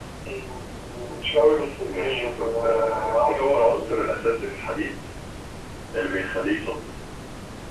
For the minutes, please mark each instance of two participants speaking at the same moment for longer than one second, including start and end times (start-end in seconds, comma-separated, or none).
1.9-4.1